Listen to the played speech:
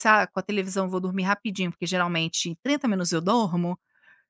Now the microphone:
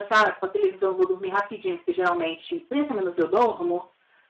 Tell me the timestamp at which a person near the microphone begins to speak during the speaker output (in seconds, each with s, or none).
none